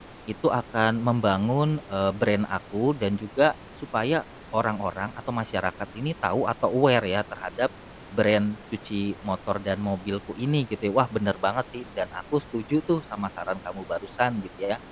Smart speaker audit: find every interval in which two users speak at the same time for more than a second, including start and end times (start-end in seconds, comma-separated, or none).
none